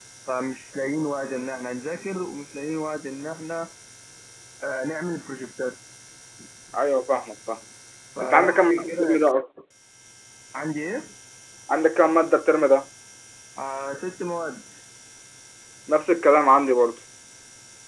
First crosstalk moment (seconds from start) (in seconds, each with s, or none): 8.2 s